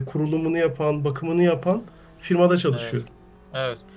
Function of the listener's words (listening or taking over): taking over